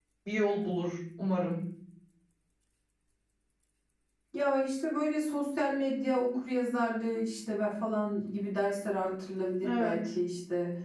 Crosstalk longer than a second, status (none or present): none